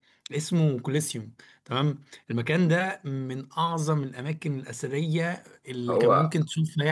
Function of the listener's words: listening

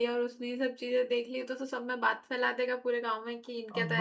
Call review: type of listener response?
taking over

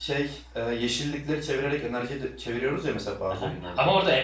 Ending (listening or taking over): taking over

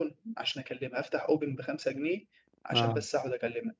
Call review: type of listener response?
listening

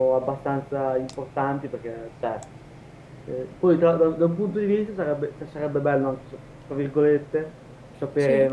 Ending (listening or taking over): listening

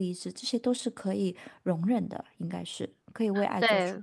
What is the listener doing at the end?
taking over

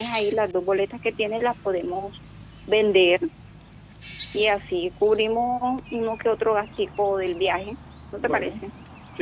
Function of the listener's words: taking over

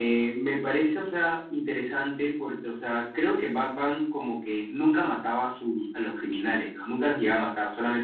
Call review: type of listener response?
listening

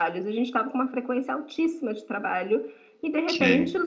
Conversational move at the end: listening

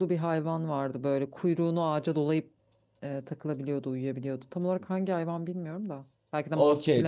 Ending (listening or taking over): taking over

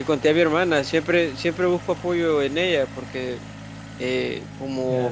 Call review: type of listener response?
taking over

